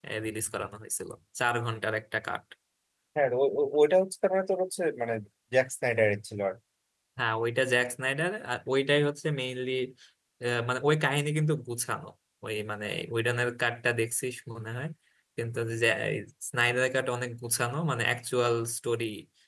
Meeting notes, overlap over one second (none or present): none